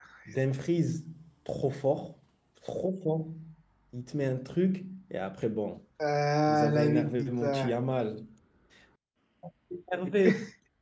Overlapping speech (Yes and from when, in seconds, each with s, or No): Yes, from 6.5 s